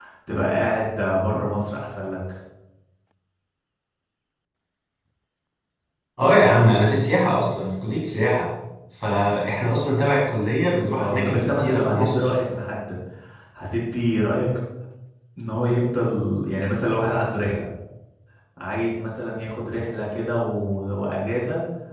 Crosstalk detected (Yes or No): Yes